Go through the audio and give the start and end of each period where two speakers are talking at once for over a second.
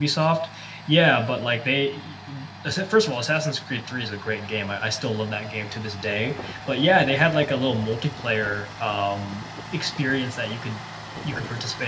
none

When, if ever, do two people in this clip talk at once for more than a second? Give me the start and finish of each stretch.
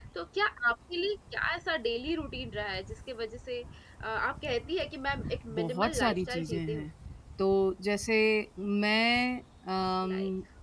5.6-6.9

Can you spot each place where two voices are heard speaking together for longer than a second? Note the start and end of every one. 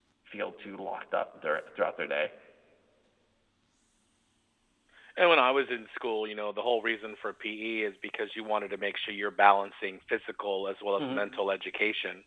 none

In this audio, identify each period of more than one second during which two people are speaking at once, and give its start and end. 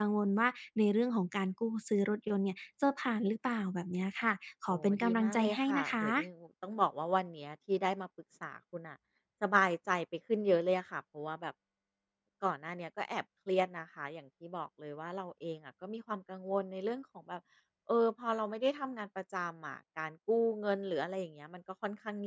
4.7-6.0

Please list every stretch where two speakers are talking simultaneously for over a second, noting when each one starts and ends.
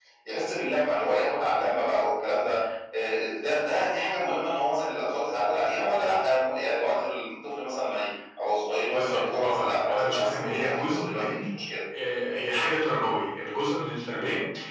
8.9-11.4

